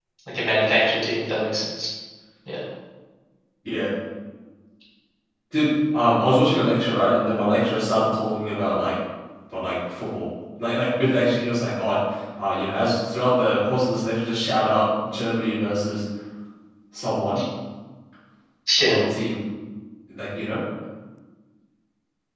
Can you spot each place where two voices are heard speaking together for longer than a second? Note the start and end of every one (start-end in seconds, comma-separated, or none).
none